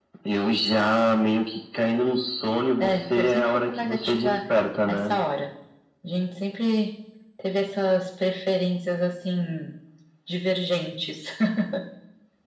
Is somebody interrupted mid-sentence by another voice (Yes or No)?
Yes